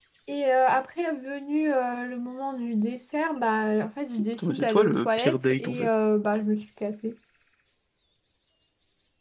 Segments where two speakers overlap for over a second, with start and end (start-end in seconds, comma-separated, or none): 4.4-5.9